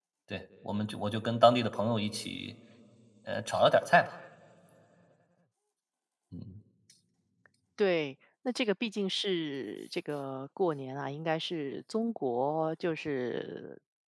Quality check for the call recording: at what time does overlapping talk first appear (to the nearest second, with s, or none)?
none